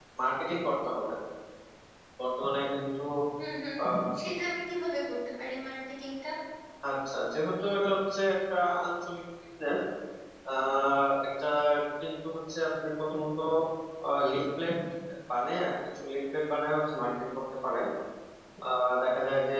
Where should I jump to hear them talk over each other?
none

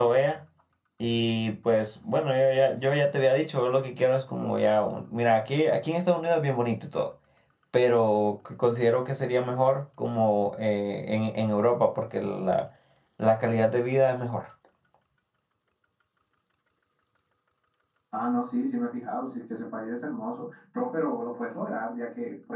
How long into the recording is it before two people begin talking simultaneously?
none

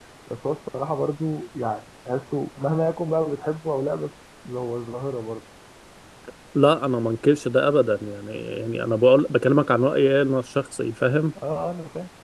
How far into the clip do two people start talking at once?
none

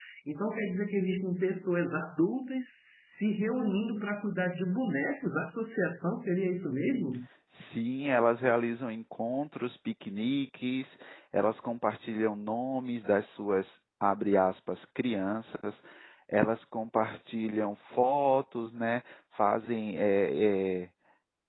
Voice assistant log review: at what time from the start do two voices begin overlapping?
none

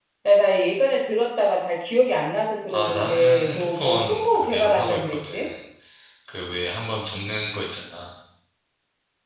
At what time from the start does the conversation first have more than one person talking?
2.7 s

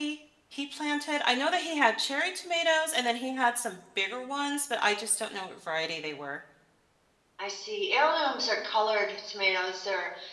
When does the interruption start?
none

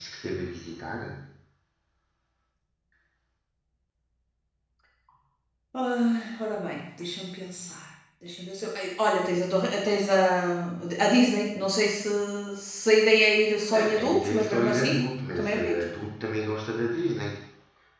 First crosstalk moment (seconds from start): 13.6 s

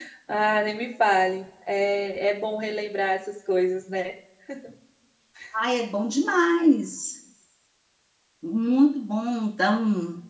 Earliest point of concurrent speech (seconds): none

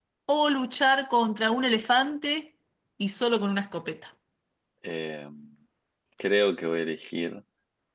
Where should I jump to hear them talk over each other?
none

